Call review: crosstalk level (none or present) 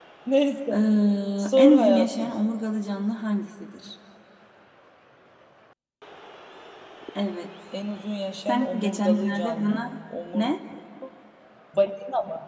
present